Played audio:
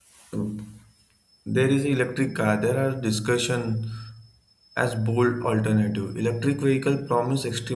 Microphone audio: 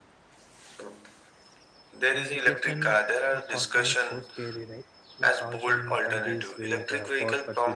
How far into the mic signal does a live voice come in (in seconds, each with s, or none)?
2.1 s